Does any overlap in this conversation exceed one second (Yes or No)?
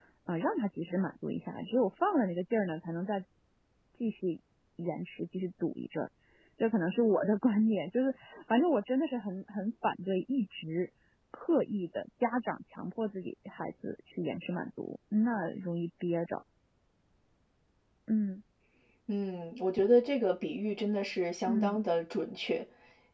No